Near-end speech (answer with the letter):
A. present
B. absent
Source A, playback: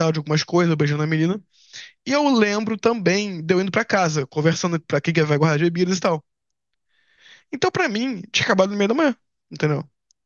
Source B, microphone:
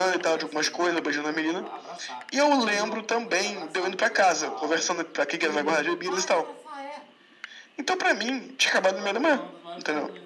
A